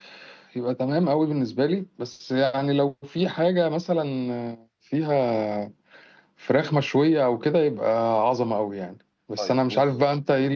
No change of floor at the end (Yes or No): Yes